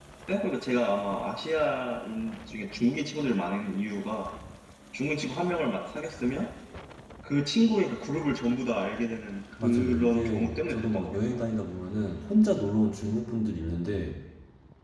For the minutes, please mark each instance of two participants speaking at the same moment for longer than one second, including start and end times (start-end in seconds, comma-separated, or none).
9.6-11.4